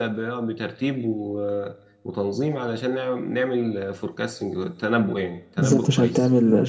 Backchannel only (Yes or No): No